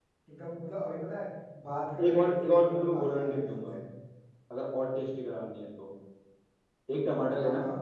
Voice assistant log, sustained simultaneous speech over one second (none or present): present